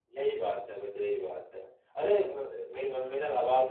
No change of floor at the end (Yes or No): Yes